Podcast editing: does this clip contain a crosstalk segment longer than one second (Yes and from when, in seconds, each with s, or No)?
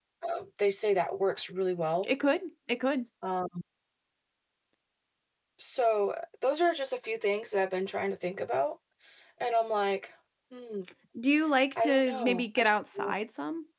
Yes, from 11.8 s